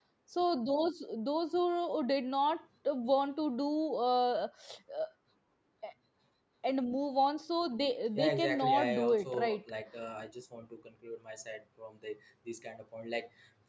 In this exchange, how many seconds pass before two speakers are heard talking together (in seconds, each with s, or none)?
8.2 s